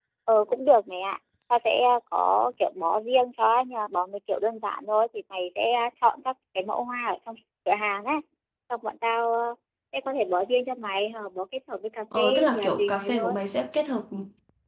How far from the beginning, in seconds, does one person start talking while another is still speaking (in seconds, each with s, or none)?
12.1 s